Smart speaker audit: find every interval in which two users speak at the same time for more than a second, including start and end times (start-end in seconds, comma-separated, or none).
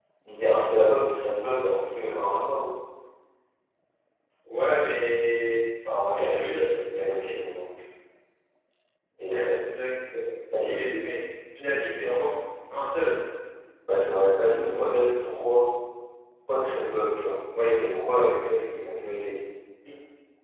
6.0-7.4